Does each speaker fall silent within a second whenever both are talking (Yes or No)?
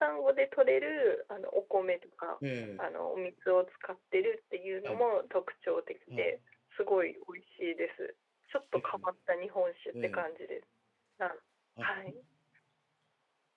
Yes